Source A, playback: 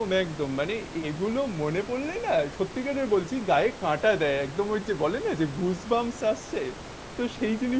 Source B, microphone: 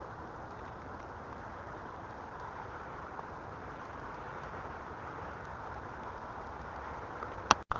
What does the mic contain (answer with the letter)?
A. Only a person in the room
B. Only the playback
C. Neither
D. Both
C